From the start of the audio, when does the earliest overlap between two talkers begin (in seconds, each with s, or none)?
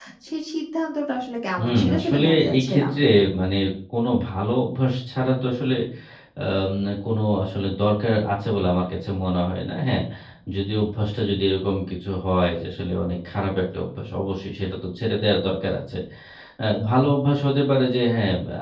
1.6 s